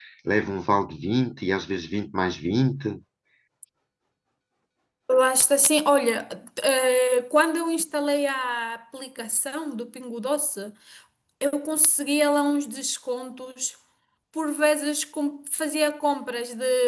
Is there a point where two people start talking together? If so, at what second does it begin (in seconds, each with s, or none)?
none